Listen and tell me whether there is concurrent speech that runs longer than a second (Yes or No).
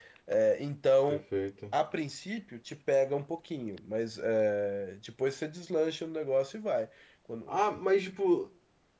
No